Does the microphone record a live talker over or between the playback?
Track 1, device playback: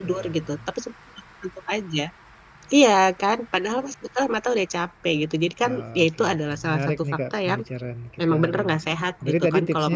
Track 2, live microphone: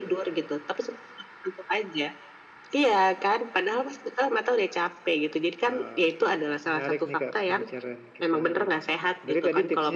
No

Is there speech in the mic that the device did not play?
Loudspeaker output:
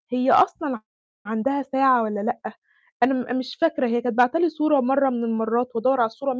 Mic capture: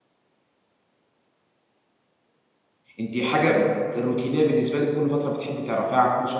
Yes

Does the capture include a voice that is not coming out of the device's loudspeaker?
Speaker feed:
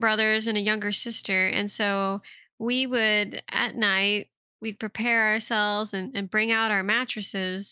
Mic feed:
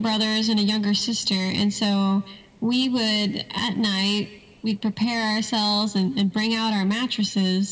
No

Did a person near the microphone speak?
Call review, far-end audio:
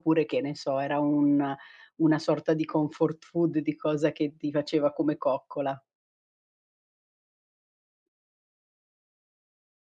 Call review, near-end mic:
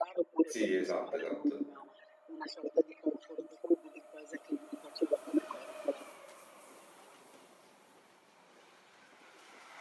Yes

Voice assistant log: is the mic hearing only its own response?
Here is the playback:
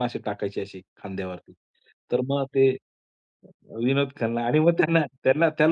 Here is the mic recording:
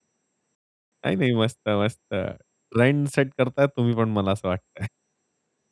No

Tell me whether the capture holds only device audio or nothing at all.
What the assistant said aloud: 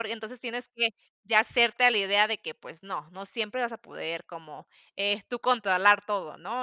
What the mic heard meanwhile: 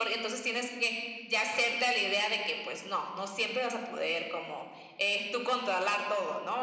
Yes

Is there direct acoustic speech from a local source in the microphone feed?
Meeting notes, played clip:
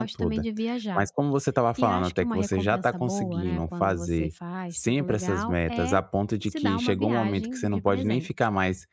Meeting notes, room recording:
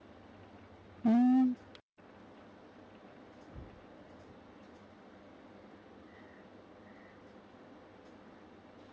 Yes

